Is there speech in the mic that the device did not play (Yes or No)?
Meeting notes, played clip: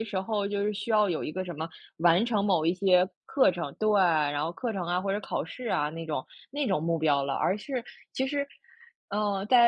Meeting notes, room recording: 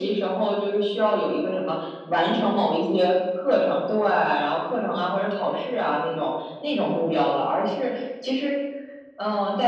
No